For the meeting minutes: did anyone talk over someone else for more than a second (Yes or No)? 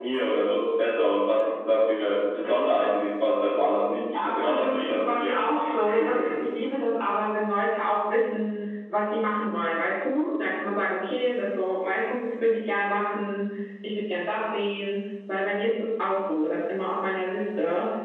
Yes